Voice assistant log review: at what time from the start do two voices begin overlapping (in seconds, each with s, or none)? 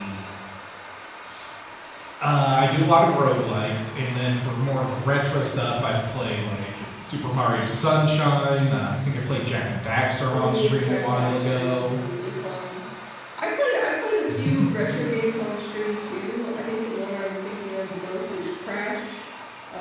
10.3 s